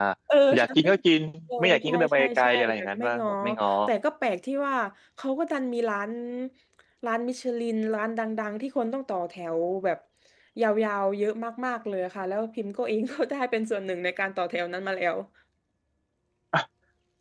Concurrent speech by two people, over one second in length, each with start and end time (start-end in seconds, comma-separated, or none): 1.6-3.3